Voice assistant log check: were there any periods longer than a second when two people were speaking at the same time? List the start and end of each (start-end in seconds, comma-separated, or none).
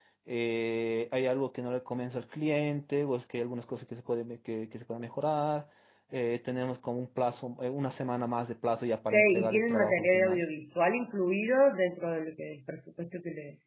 9.1-10.4